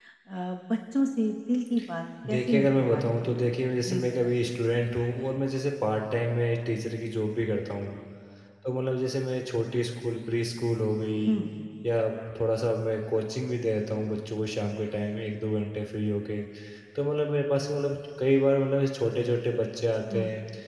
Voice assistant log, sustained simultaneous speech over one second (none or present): present